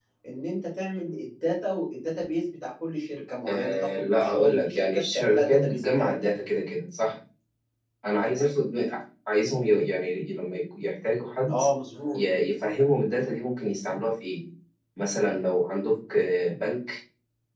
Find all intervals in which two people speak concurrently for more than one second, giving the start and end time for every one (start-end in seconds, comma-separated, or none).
3.5-6.3